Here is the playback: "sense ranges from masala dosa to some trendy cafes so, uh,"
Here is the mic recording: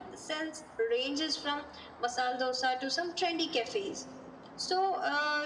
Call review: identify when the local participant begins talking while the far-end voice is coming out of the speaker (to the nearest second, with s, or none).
none